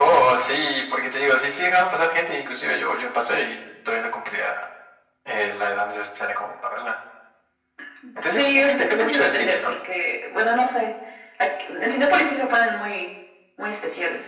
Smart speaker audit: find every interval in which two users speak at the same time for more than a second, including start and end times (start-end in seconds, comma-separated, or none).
8.2-9.7